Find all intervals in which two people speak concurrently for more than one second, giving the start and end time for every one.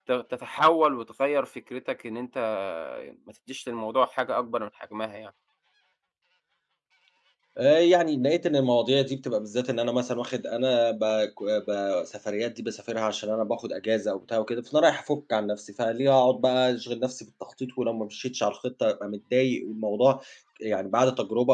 none

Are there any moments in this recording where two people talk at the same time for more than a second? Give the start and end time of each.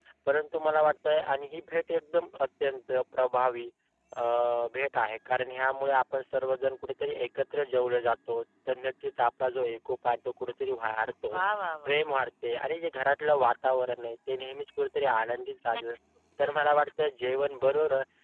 none

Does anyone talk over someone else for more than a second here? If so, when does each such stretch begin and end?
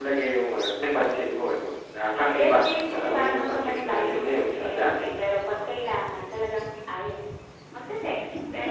2.4-5.0

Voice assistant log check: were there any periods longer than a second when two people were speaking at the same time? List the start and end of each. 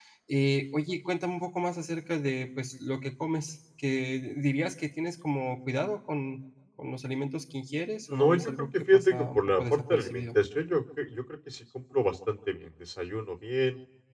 8.1-10.4

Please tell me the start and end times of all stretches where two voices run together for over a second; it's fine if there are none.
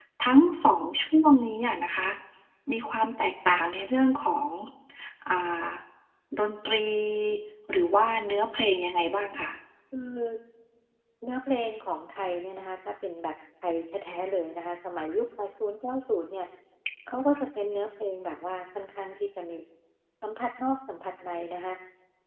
none

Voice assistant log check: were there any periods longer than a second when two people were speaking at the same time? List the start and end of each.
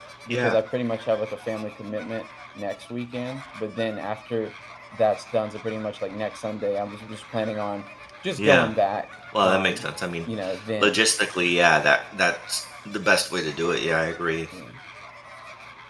none

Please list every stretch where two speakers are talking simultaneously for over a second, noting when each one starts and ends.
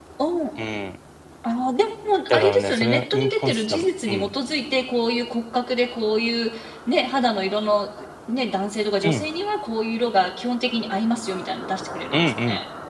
2.3-4.3

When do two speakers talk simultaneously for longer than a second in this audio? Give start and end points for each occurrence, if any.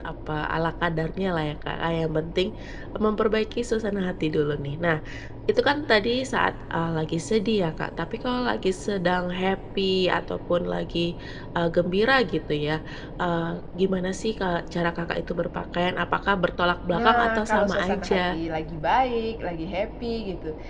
16.9-18.4

